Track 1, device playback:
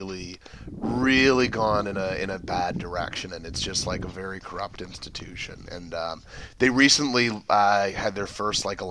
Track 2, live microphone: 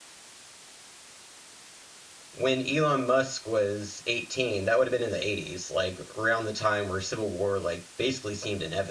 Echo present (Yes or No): No